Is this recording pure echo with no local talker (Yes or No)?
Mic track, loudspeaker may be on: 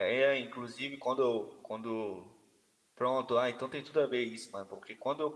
No